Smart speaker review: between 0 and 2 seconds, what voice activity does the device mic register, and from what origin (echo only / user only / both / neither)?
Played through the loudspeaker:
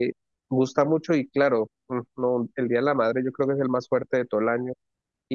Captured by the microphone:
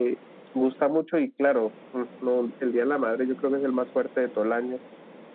echo only